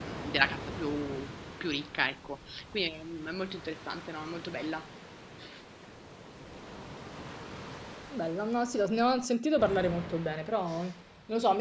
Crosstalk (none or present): none